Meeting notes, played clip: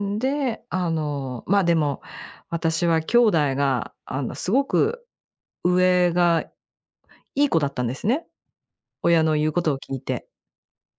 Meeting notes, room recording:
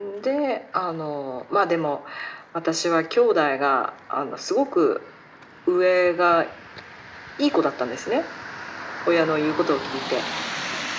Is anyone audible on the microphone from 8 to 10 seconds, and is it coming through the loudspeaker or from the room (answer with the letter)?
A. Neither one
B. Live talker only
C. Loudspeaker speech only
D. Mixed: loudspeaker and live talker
C